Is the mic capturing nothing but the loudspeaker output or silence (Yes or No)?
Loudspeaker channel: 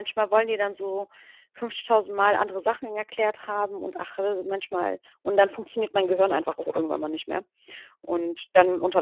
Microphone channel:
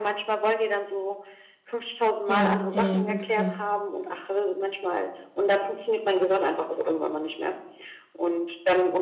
No